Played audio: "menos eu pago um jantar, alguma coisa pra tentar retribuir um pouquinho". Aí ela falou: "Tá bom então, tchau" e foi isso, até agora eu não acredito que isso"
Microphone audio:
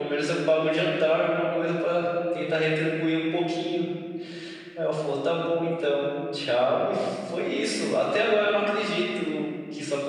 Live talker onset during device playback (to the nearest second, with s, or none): none